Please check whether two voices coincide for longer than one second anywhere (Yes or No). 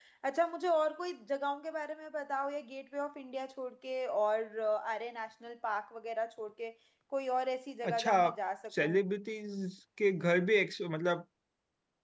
No